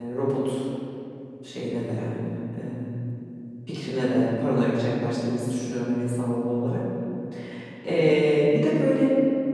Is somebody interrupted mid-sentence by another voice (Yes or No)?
No